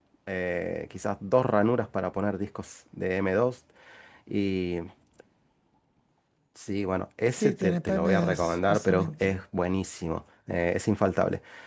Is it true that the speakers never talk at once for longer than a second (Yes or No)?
No